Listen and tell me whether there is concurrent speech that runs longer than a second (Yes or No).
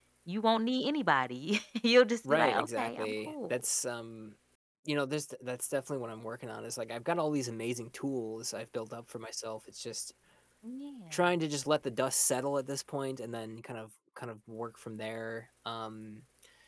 Yes